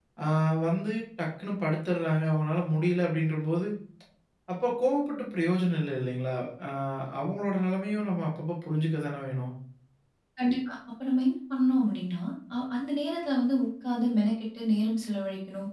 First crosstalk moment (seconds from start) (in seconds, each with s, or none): none